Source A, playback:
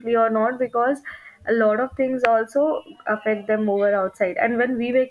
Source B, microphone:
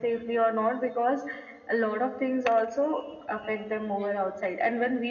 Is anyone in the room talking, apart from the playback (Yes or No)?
No